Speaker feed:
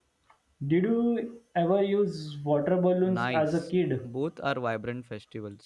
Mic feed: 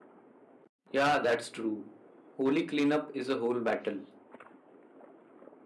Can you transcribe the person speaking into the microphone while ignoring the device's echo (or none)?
Yeah, that's true. Holy cleanup is a whole battle.